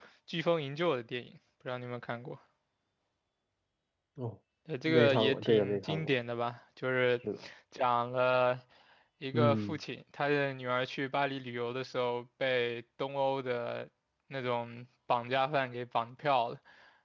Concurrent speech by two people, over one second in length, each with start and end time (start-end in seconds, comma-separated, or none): 4.9-6.2